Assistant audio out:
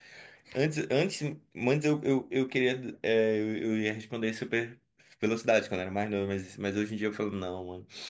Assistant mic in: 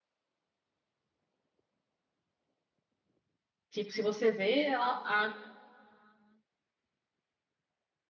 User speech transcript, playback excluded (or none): Tipo, se você vê, ela, a,